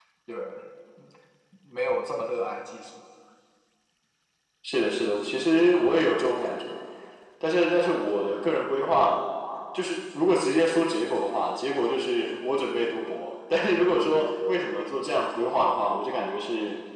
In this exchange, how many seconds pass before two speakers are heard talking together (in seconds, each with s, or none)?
none